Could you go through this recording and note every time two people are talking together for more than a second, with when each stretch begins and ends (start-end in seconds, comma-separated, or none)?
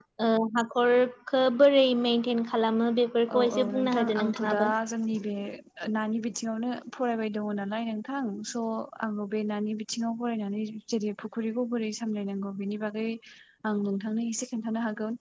3.3-4.7